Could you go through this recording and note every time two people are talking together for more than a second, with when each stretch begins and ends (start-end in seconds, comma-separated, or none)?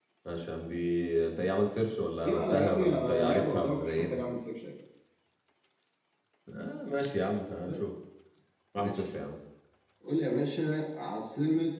2.1-4.2